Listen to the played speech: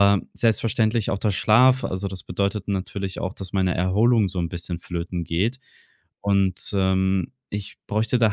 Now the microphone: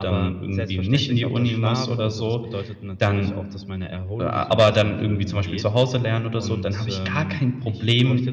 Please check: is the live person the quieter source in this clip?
No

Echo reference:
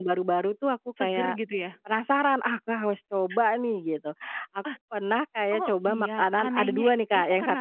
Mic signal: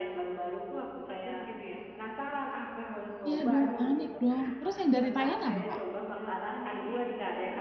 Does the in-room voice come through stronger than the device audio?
Yes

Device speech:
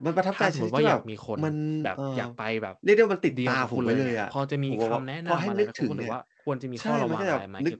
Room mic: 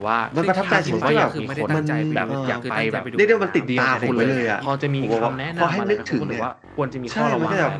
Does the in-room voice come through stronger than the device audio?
No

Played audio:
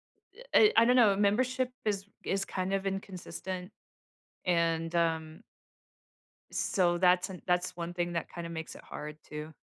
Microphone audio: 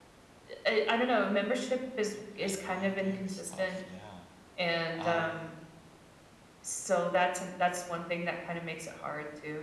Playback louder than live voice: Yes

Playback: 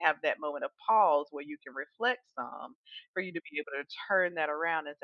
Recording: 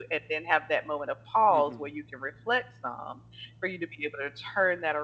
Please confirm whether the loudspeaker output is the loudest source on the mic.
Yes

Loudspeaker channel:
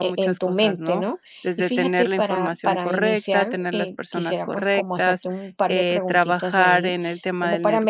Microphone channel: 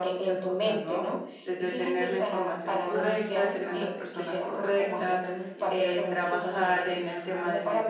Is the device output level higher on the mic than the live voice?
Yes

